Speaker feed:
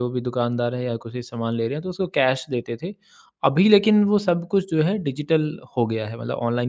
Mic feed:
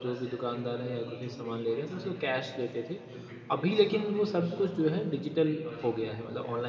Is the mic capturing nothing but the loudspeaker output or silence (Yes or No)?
No